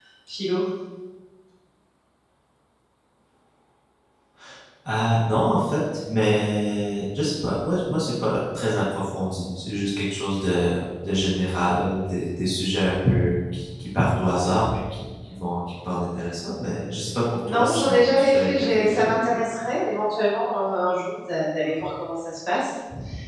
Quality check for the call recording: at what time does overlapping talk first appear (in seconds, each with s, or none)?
17.4 s